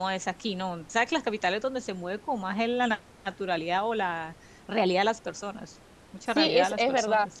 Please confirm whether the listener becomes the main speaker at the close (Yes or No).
Yes